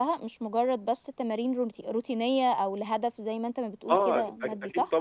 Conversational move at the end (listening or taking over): taking over